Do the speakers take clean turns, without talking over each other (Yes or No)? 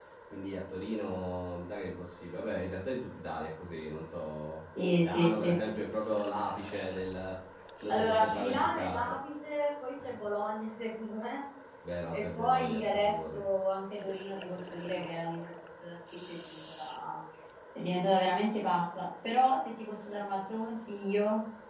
No